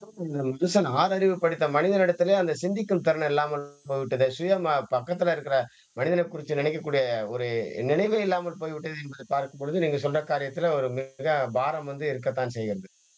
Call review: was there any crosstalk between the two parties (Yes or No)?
No